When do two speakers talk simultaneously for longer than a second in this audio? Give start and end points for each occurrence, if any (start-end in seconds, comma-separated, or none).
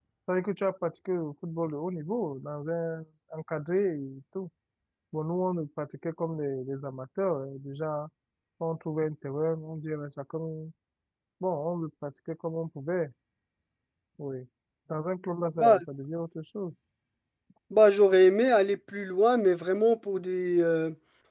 none